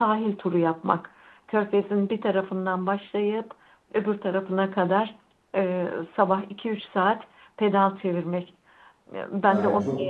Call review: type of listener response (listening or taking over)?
taking over